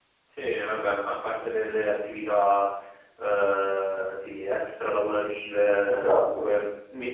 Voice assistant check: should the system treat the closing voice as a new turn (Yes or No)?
No